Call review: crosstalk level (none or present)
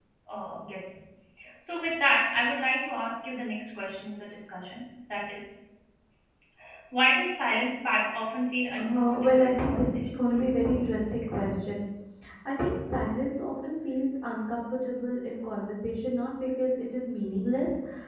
present